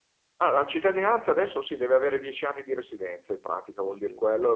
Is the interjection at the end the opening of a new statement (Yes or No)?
No